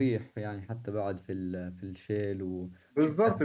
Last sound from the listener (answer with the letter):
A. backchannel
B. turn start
B